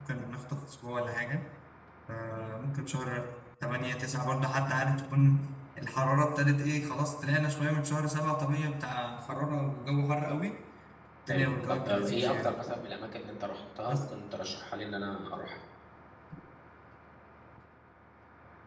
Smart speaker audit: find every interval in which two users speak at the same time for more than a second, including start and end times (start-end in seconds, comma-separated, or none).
11.3-12.6